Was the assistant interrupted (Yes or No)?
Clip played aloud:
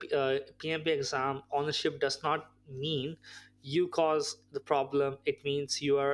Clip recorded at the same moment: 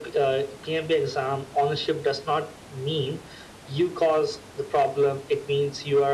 No